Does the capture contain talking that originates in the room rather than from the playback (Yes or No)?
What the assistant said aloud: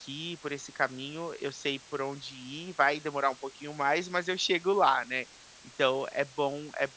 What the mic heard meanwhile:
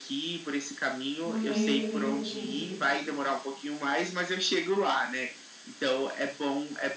Yes